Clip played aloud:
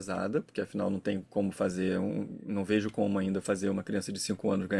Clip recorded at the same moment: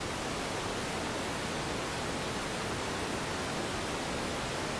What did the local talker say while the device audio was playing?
none

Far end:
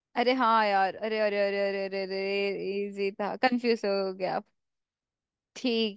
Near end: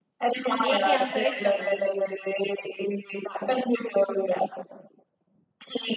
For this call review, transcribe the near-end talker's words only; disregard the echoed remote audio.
एक ही आंसर है इसका तो

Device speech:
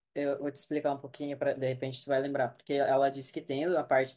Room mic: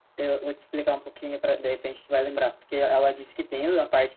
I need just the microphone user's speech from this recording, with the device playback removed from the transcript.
none

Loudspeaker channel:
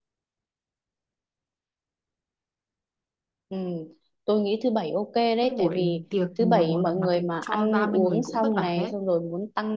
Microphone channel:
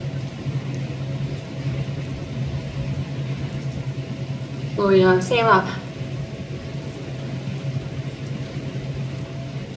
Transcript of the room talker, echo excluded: Rồi ờ, xem là

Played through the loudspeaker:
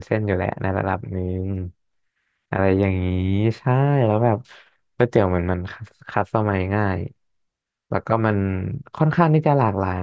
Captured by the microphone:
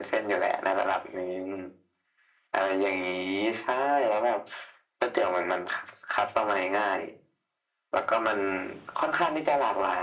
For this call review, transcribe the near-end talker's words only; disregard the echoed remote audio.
none

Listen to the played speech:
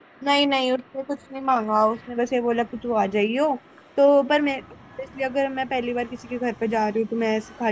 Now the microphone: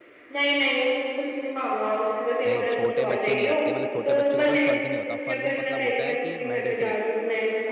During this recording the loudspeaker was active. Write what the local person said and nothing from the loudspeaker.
नहीं छोटे बच्चे नहीं रखते मतलब छोटे बच्चे के ऊपर फर्ज नहीं होता फर्ज मतलब होता है कि मैंडेटरी

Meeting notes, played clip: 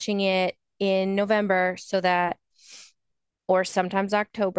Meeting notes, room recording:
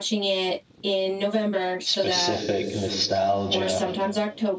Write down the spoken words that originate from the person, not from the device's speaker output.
specific nostalgia

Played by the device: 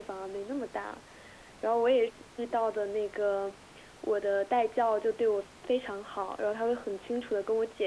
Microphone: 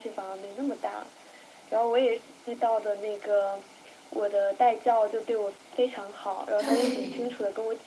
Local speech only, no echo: 对，

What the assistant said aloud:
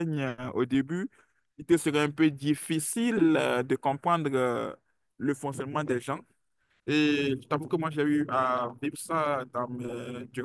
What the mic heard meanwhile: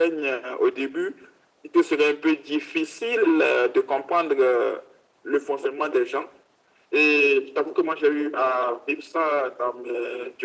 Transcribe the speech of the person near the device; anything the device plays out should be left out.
none

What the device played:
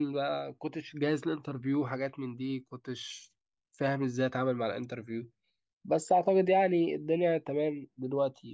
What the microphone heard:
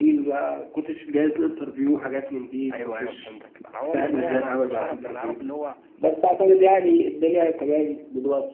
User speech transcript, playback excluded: أيوه أيوه فهمتك أنا عمال والله أنا ما كنتش أعرف أنا أعرف اللي هو

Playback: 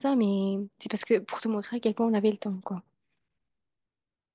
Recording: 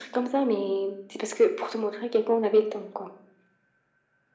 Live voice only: none

